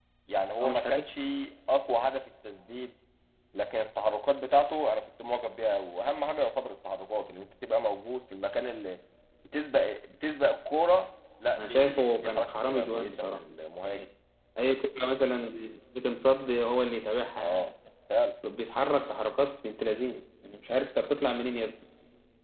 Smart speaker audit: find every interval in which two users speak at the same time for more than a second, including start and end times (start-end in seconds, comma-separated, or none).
11.6-13.4